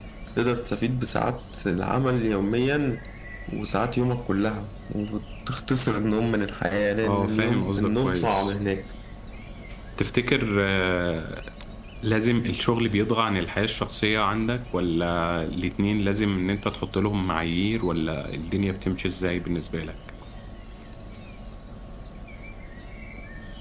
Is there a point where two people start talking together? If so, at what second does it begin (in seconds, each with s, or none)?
7.0 s